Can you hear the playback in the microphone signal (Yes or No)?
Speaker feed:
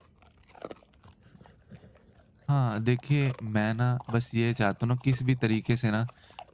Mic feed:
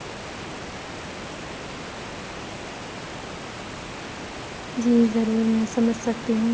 No